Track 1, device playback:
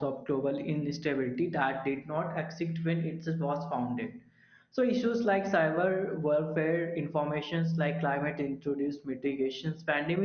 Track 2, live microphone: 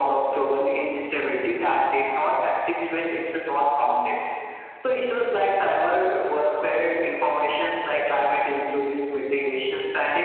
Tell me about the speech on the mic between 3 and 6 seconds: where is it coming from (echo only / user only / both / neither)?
echo only